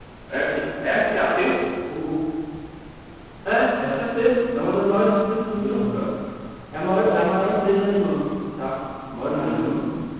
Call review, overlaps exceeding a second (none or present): none